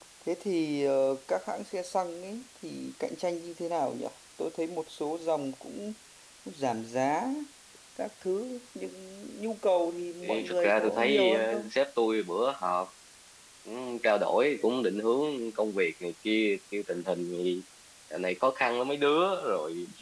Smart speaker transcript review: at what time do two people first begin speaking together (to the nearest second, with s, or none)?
10 s